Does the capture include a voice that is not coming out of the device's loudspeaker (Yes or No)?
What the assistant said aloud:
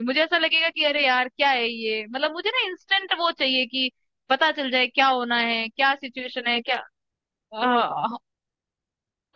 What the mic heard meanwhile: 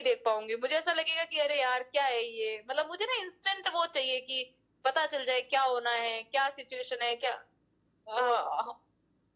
No